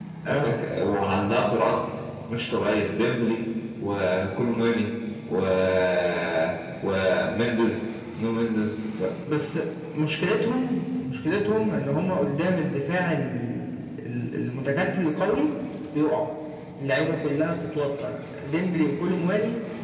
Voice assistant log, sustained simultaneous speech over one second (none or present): none